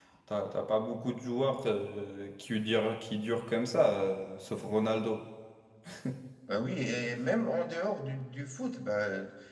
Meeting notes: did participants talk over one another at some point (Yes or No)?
No